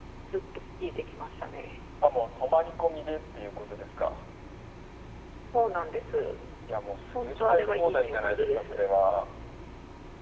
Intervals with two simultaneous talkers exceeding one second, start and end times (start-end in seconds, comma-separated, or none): 7.1-8.8